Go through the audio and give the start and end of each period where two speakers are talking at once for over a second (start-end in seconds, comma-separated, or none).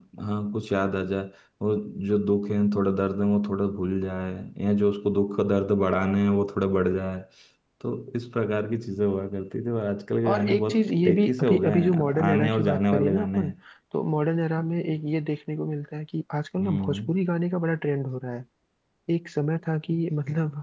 10.3-13.5